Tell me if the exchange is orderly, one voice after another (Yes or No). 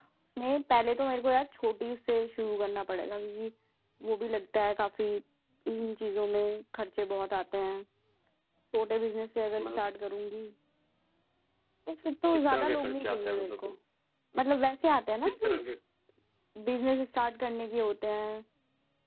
No